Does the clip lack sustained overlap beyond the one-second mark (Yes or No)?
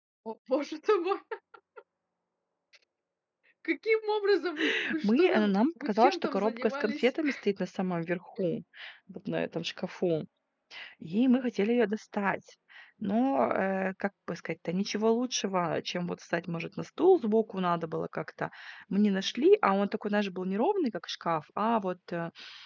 No